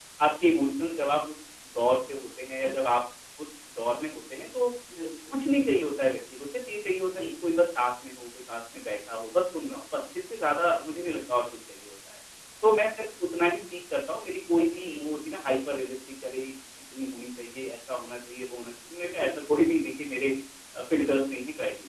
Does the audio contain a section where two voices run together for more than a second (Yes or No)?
No